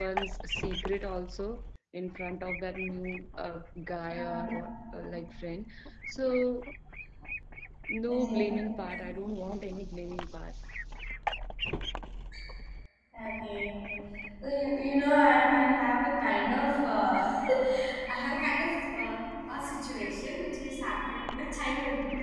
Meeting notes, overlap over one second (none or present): none